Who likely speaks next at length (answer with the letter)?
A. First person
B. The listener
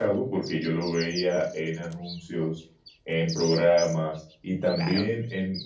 A